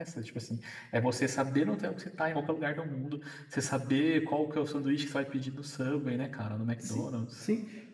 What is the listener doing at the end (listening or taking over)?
taking over